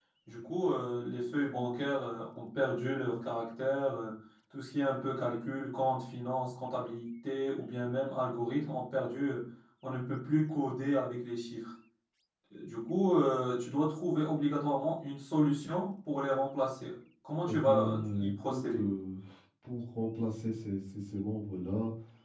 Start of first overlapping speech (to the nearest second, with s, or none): 17 s